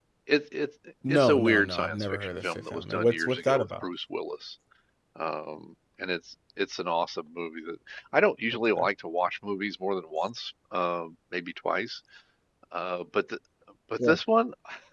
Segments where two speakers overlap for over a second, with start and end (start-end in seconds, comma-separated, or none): 1.1-3.7